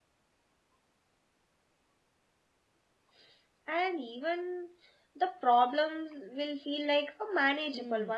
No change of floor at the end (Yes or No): No